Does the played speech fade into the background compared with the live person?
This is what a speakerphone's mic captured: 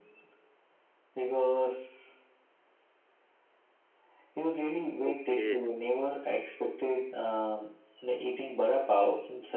No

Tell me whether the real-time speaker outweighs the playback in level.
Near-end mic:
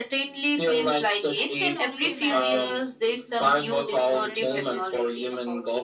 No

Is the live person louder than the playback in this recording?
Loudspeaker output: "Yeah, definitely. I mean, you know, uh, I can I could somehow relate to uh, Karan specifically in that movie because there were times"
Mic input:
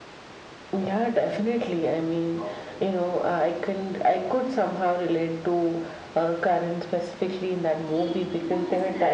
No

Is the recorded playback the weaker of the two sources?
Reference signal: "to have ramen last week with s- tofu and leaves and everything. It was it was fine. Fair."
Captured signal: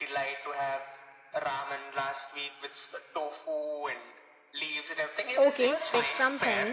Yes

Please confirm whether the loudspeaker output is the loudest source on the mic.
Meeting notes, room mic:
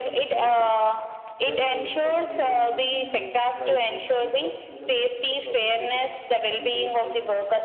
Yes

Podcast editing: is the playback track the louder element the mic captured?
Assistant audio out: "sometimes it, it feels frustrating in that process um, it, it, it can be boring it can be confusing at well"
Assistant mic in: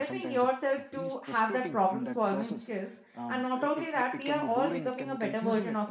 No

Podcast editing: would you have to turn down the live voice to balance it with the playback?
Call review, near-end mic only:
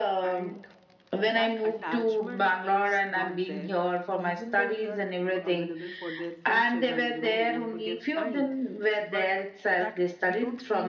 No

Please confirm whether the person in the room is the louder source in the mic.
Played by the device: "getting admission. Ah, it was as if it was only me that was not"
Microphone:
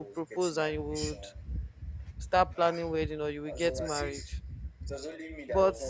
Yes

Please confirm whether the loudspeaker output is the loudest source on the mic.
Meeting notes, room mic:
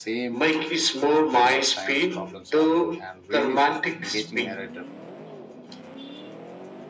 Yes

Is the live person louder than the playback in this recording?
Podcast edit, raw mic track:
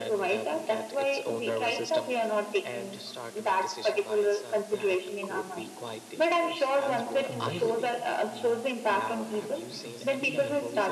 No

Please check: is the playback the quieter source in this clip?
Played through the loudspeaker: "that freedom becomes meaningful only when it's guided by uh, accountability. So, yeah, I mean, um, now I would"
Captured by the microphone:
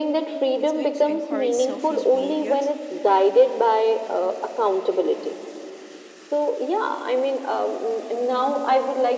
No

